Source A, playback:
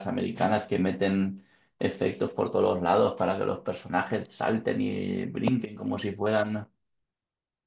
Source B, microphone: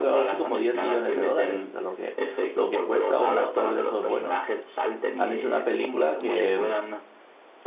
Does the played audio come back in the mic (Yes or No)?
Yes